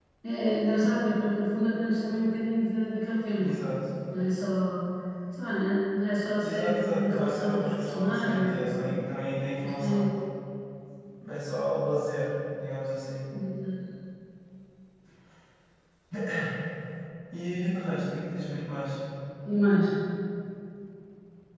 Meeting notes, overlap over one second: present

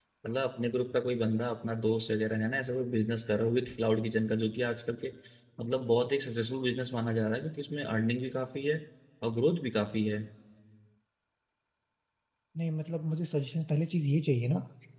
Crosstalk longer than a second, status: none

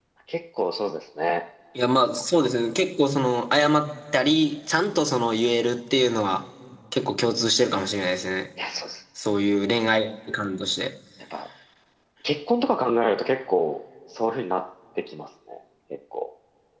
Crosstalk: none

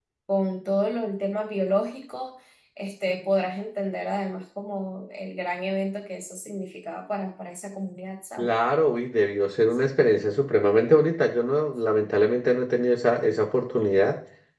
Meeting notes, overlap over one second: none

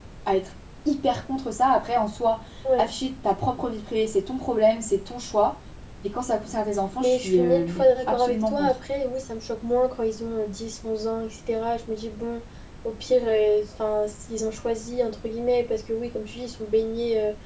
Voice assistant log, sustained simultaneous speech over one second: present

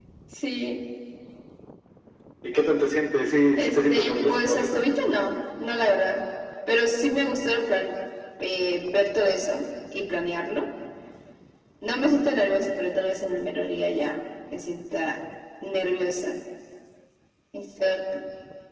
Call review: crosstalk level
present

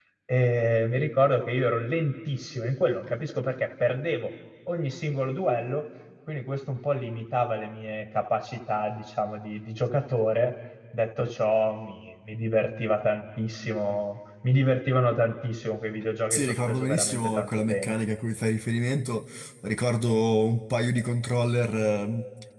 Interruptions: present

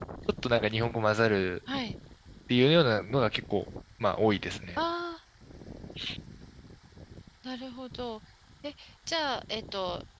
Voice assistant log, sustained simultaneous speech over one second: none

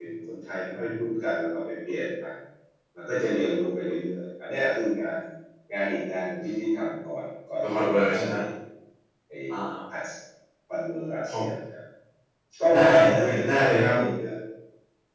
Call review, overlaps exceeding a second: present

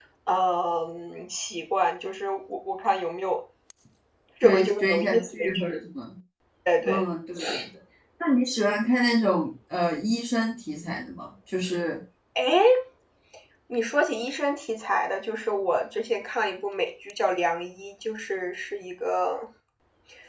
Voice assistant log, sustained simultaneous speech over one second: present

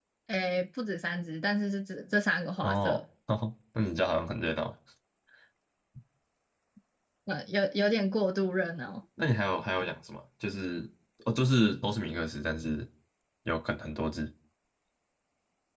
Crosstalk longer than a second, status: none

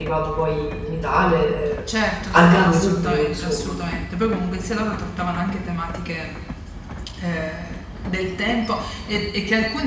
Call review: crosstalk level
present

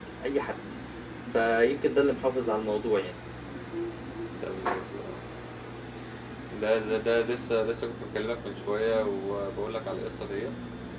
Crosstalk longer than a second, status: none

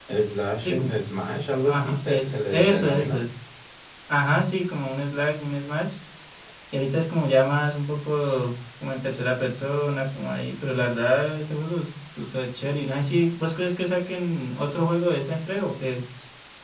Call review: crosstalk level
present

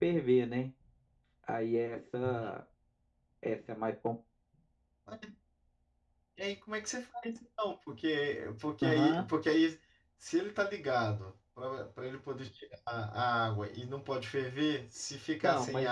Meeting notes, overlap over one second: none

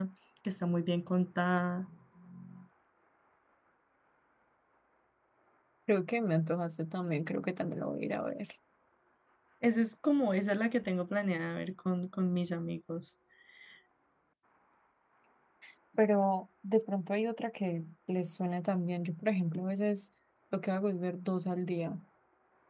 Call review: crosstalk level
none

